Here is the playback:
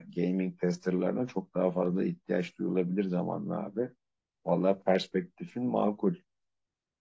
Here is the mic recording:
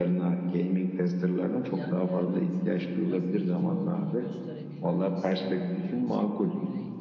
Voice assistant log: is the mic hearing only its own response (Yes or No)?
No